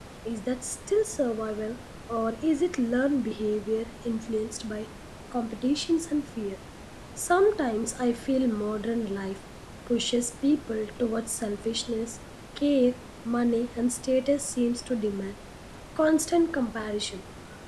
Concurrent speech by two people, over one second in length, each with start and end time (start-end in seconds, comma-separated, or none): none